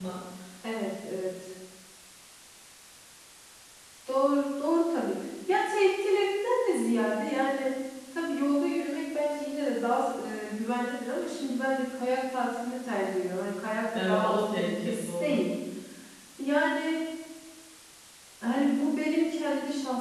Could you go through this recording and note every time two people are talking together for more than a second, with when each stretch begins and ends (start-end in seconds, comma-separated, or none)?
14.0-15.4